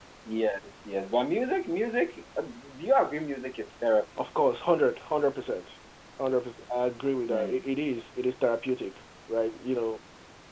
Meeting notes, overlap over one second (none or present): none